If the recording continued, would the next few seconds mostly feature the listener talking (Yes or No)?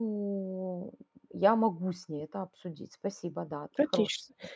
Yes